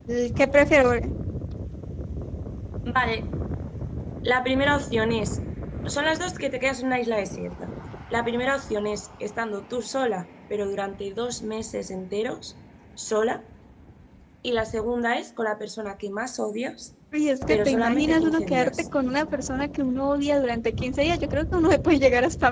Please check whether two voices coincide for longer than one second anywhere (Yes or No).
Yes